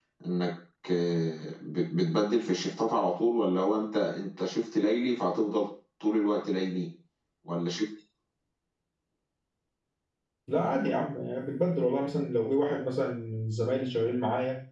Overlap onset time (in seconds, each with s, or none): none